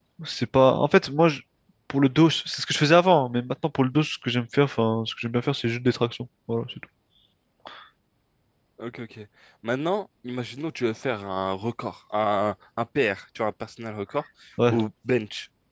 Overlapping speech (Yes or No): No